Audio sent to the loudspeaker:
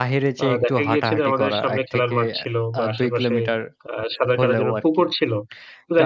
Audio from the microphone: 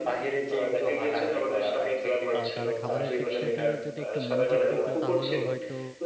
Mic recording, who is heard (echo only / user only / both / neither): both